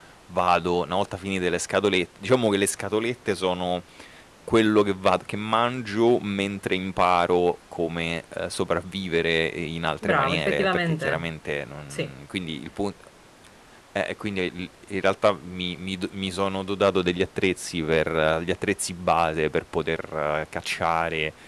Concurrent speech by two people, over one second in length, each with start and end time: 10.0-11.3

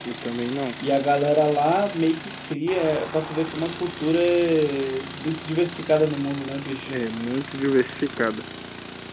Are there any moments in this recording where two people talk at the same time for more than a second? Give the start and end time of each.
none

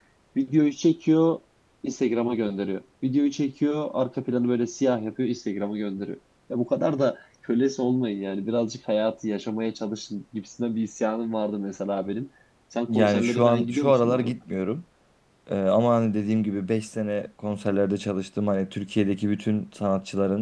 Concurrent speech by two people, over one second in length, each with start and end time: 12.9-14.3

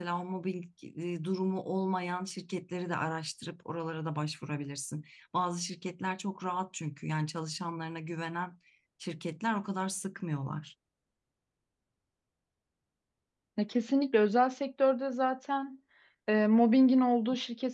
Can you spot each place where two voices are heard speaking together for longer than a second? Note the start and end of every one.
none

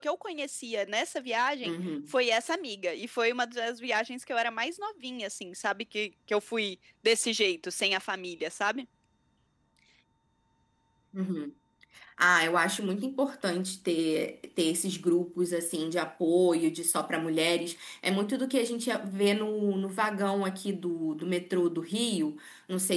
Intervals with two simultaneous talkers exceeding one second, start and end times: none

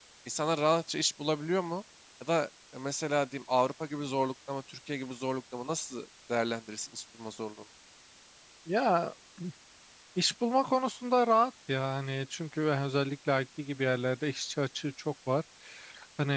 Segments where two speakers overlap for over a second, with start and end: none

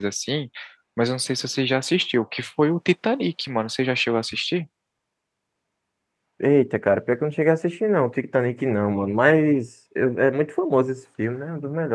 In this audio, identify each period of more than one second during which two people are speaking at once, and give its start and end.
none

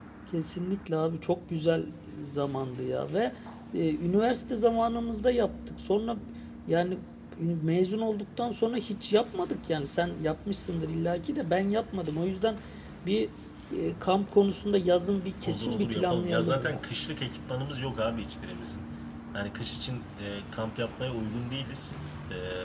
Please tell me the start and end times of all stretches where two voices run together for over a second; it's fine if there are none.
15.4-16.8

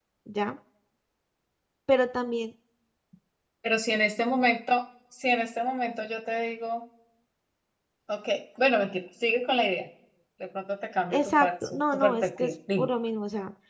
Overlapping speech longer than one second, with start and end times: 11.1-12.9

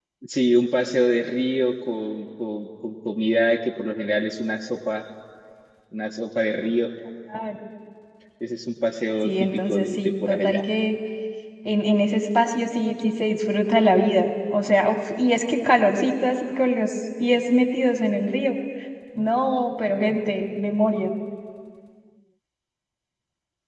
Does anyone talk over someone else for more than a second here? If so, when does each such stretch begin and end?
9.2-10.6

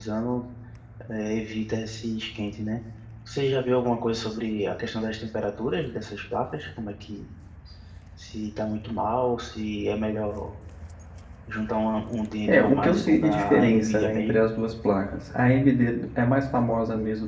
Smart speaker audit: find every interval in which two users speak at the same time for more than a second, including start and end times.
12.5-14.4

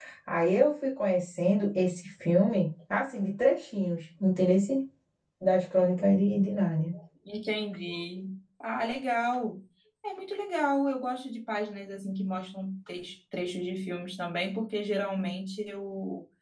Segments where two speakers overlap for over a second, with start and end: none

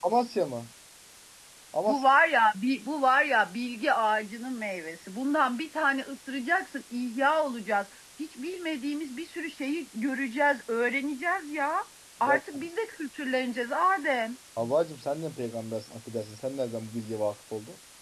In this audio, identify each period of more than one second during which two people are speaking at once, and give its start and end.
none

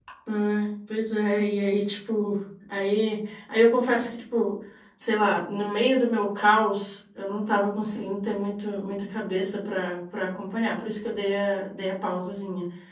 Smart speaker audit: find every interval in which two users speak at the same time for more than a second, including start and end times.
none

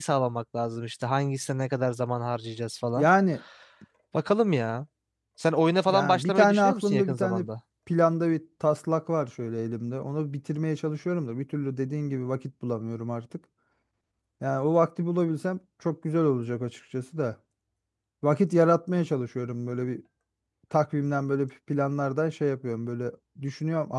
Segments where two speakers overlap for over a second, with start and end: 5.9-7.4

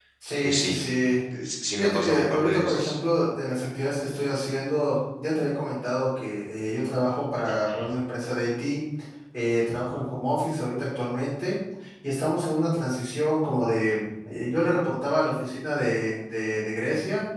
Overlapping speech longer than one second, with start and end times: 1.8-3.0

